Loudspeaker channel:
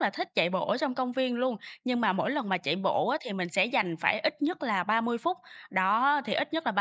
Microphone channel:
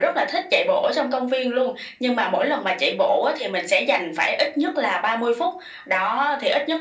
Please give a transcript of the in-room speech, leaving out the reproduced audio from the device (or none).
none